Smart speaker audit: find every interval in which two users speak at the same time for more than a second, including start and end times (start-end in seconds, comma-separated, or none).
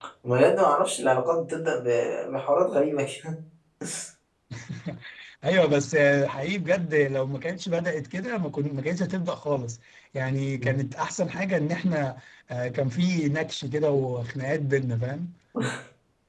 none